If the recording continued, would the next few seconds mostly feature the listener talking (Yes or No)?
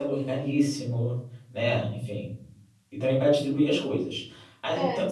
No